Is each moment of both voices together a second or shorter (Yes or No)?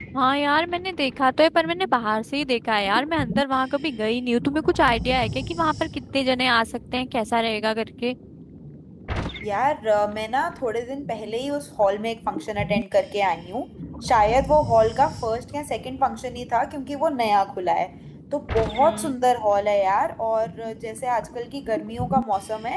Yes